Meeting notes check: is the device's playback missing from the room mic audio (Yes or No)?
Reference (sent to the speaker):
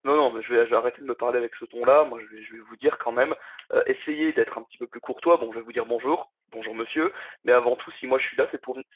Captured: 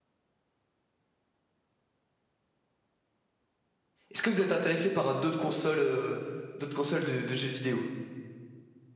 Yes